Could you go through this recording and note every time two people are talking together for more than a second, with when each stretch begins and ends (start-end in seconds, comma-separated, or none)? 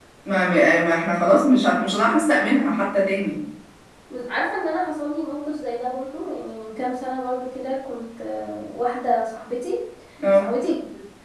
none